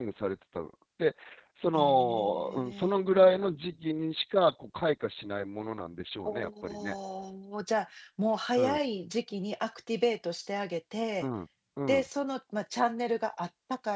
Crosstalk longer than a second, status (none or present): present